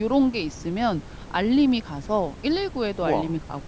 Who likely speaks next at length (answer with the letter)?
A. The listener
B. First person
B